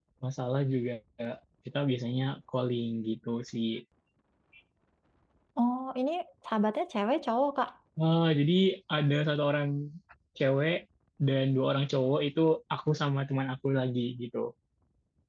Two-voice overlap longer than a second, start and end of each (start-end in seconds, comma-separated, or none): none